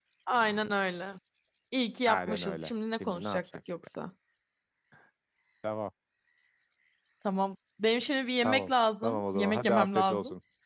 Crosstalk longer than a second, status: present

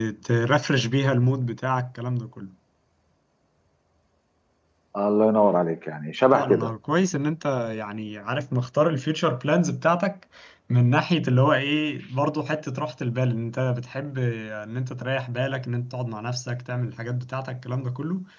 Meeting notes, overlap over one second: none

